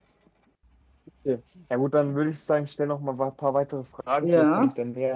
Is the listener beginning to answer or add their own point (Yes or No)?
No